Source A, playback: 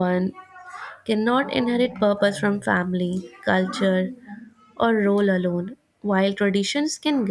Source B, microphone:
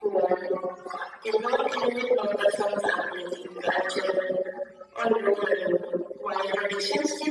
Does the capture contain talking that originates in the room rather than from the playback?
No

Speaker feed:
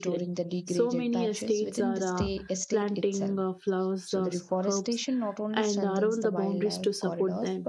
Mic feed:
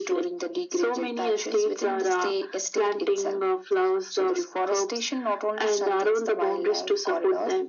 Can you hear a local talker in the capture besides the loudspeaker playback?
No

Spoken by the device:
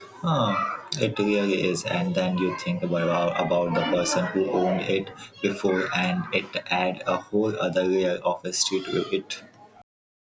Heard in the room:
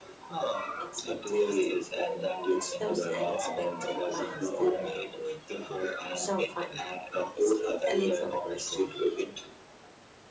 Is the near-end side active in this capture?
Yes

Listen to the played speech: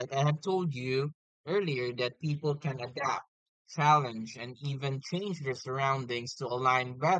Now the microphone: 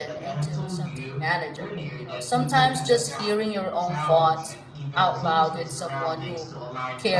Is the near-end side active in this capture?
Yes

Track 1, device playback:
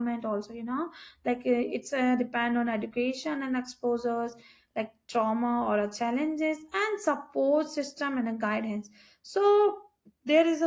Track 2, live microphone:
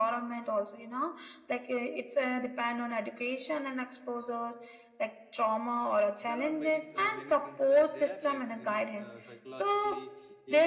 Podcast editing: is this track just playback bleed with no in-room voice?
No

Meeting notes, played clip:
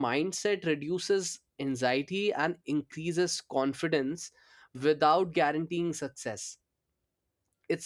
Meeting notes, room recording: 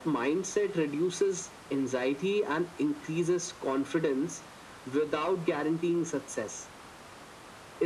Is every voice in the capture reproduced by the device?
Yes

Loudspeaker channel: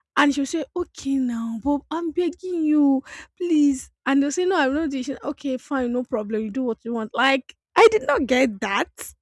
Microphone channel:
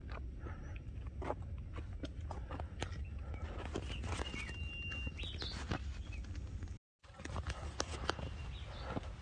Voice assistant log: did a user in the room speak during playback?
No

